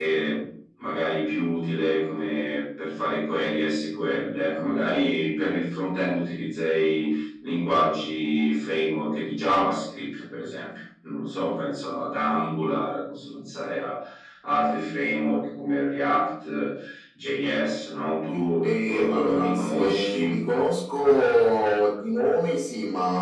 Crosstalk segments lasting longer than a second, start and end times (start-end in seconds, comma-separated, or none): 18.6-20.4